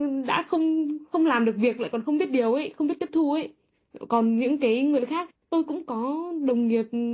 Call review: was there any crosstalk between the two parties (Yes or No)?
No